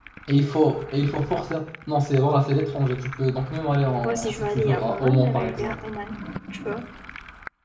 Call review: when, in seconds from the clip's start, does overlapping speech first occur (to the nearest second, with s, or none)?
4 s